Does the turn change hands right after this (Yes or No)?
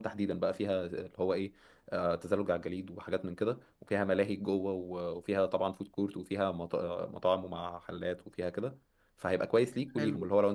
No